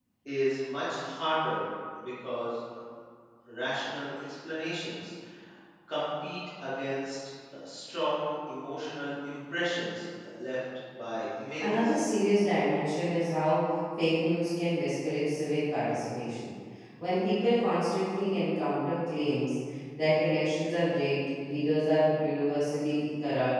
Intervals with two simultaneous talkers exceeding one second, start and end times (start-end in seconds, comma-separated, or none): none